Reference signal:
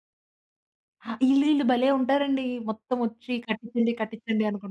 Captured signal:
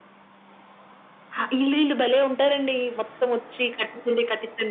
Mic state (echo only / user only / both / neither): echo only